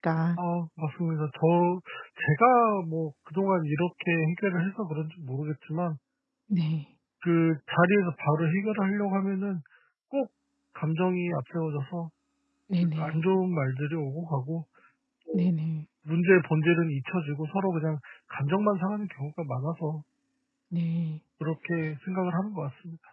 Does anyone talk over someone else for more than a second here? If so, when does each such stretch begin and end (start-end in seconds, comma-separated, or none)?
none